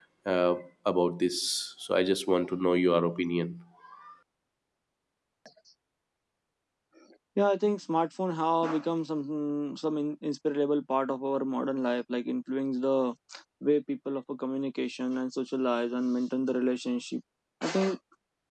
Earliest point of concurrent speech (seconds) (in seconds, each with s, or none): none